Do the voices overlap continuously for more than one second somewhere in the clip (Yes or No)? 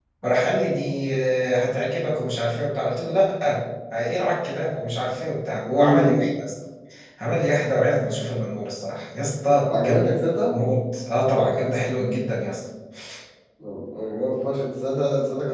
No